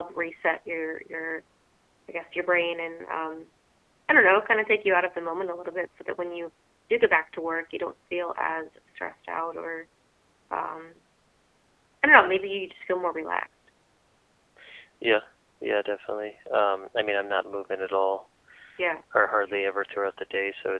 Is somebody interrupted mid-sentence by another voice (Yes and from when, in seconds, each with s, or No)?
No